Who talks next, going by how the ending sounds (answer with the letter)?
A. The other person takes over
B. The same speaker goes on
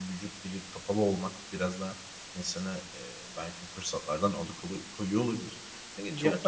A